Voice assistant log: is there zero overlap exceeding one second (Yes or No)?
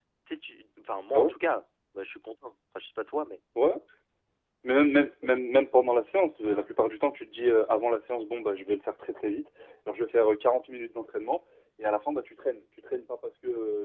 Yes